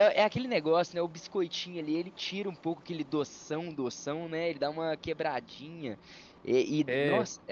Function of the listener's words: listening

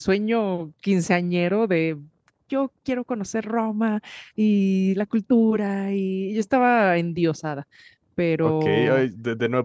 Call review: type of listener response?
taking over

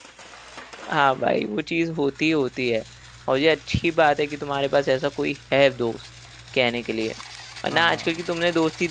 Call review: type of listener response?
listening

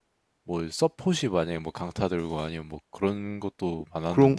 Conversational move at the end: taking over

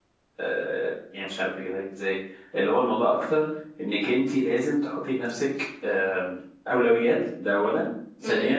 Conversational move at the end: listening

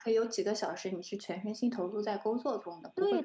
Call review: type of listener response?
taking over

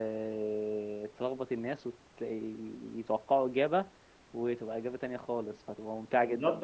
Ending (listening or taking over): taking over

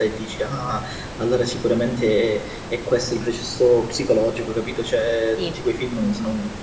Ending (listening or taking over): listening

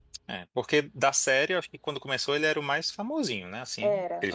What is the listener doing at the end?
listening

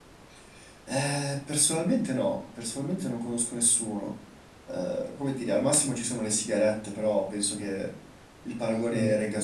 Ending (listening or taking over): taking over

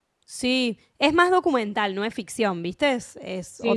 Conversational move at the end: taking over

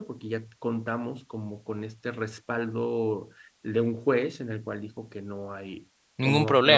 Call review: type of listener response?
listening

